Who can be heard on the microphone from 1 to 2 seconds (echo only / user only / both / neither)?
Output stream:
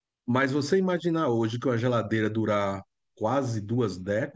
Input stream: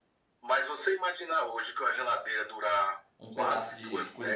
echo only